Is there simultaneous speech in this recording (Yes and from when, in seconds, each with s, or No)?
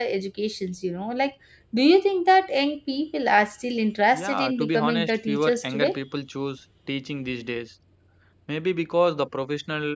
Yes, from 4.1 s